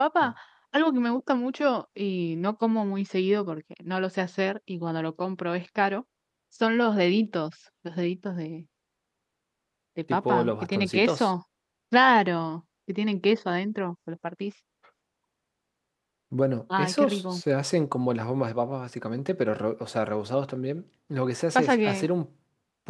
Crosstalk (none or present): present